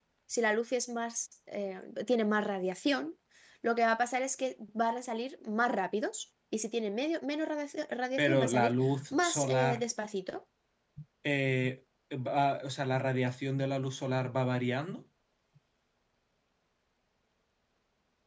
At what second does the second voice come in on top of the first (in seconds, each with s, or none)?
8.2 s